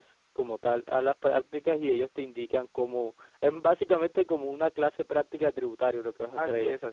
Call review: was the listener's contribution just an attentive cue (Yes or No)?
No